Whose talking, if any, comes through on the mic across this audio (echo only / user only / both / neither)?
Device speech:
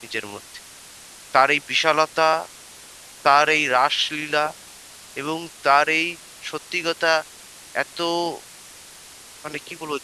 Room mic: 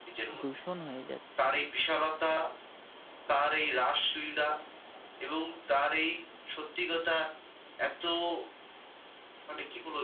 both